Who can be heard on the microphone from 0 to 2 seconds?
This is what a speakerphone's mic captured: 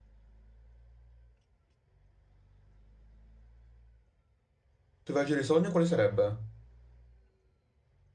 neither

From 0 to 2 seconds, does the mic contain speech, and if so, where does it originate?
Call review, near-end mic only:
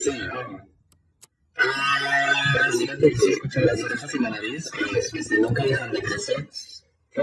echo only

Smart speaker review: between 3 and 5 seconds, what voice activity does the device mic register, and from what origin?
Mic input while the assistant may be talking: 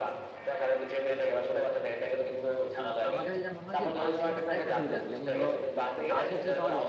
both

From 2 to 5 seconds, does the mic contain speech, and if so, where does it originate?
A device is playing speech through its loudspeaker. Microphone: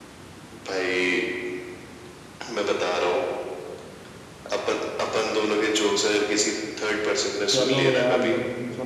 echo only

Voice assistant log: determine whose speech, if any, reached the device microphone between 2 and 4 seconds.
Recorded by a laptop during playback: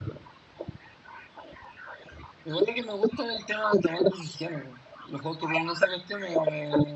echo only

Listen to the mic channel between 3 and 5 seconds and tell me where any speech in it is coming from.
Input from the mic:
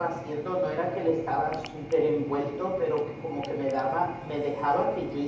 user only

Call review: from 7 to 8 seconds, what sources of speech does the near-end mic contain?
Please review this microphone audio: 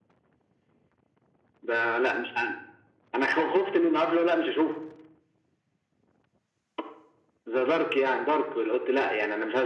echo only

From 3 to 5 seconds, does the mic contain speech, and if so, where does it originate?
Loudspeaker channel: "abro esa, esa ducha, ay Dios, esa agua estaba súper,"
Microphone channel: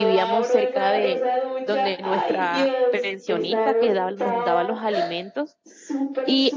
both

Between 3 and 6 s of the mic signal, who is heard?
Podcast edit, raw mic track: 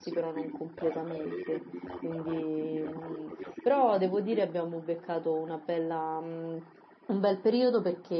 both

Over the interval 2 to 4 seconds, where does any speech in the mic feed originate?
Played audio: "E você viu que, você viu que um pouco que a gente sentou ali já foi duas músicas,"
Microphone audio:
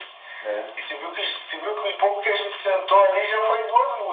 echo only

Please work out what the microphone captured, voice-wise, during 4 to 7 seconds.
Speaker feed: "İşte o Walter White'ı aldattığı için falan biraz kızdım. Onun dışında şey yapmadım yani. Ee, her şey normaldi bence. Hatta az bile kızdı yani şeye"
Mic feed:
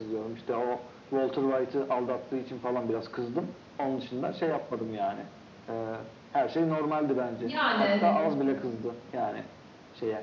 echo only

